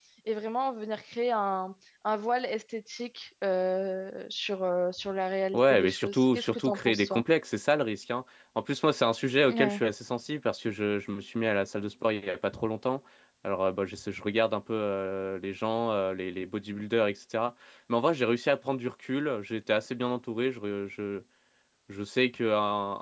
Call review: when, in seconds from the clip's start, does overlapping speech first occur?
6 s

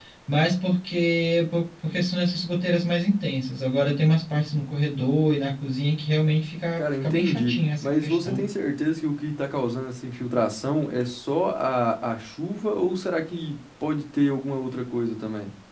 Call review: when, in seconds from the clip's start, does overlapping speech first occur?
7 s

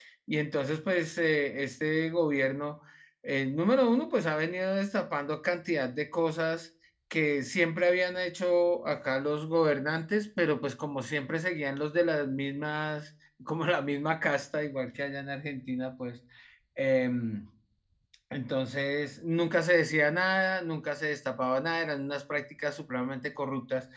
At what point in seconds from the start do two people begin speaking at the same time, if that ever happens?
none

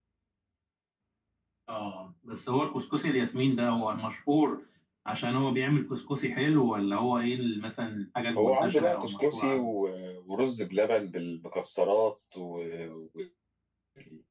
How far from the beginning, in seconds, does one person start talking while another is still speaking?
8 s

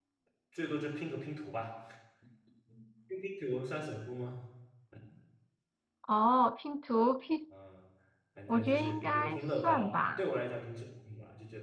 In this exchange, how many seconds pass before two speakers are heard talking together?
8 s

